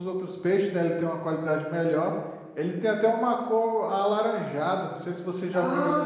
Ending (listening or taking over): taking over